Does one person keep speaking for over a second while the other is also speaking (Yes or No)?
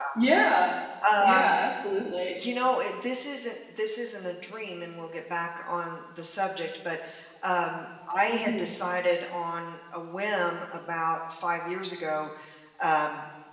No